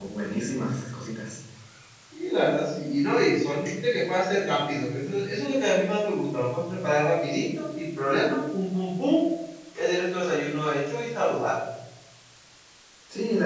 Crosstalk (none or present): none